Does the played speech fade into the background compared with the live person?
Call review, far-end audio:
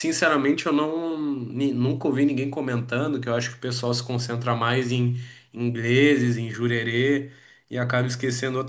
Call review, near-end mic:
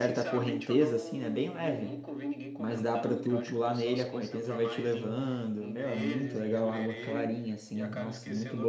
Yes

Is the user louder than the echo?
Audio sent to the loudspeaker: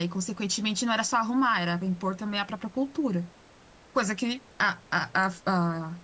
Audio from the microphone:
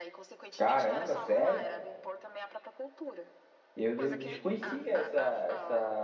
Yes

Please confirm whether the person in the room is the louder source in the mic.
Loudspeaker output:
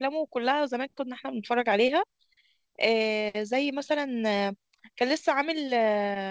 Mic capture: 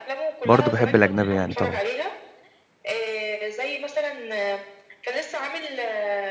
Yes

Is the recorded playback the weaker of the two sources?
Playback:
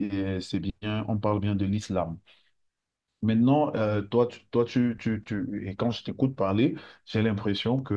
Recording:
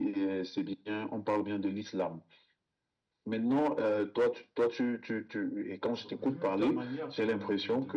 No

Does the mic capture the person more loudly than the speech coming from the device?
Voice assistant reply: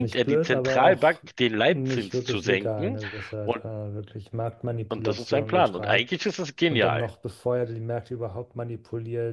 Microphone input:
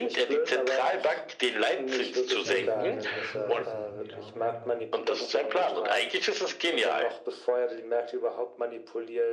No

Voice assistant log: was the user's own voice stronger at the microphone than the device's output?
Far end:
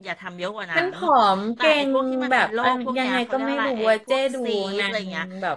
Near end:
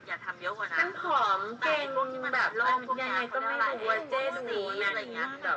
No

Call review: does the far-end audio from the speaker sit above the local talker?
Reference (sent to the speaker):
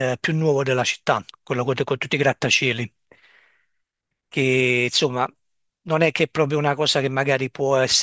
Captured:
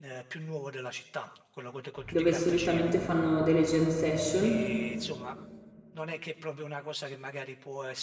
No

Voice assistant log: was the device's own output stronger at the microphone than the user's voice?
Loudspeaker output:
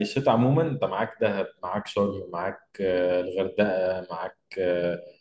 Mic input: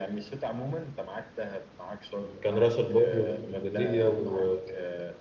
No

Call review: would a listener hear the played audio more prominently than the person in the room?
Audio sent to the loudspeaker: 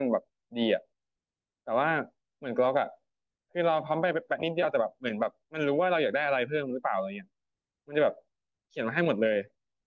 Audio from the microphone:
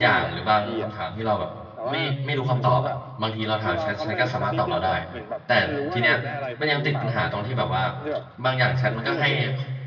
No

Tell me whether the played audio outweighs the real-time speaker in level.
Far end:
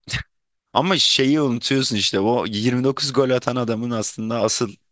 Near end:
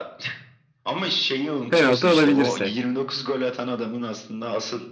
No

